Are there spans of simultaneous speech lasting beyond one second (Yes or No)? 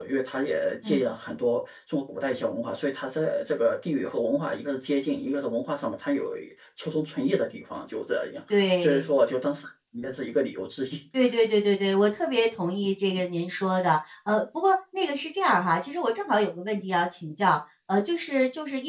No